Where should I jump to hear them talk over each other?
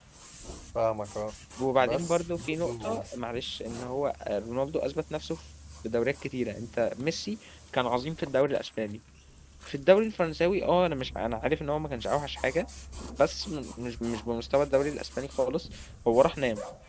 2 s

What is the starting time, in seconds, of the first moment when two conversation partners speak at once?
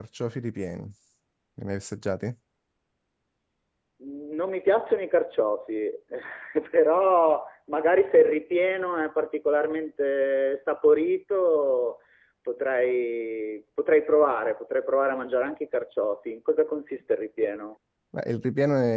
none

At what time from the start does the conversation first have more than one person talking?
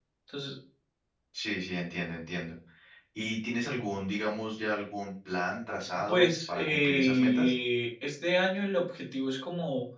6 s

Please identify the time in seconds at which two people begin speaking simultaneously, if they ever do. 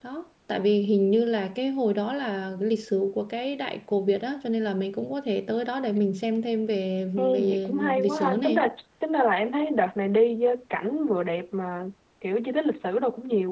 7 s

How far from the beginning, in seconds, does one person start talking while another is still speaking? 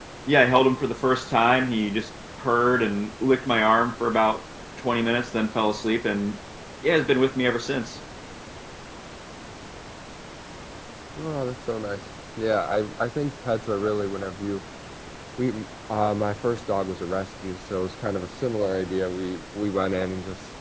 none

